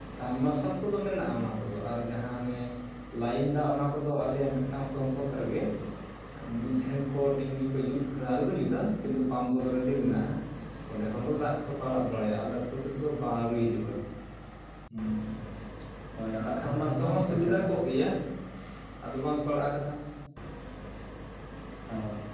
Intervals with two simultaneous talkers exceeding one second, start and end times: 16.5-17.7

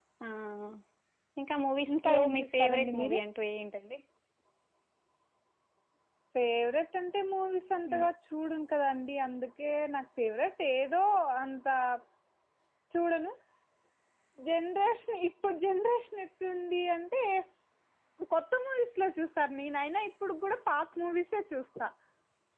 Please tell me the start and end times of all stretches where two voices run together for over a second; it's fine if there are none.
1.9-3.2

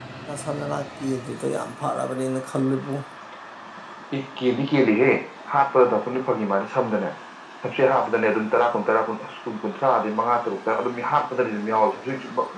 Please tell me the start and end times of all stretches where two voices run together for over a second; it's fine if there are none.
none

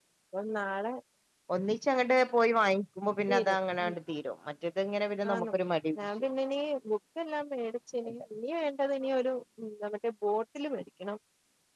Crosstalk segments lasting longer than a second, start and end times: none

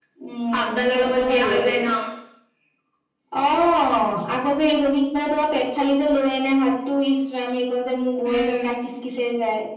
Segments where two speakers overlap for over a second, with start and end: 0.5-1.8

